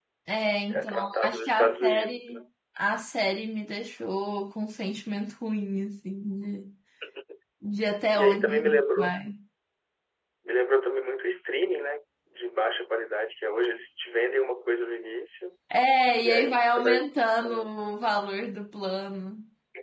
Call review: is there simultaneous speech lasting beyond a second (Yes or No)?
Yes